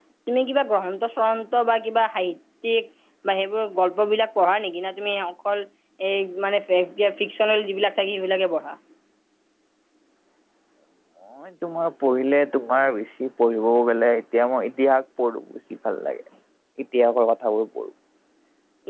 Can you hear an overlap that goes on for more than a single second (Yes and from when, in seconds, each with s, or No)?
No